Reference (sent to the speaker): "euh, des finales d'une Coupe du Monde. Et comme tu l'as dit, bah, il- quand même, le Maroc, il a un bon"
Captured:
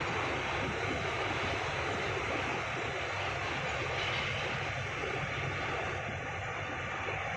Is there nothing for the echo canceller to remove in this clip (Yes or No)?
Yes